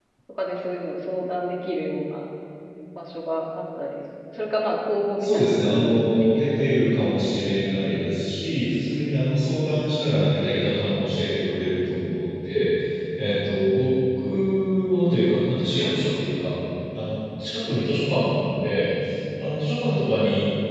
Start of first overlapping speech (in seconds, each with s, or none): 5.2 s